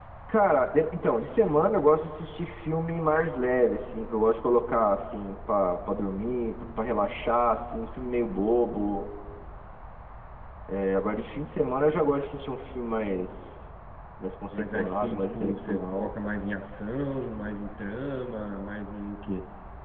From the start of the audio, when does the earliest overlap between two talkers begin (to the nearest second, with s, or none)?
15 s